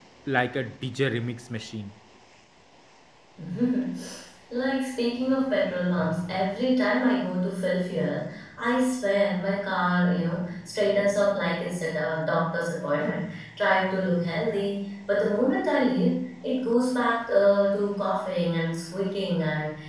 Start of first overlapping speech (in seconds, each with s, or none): none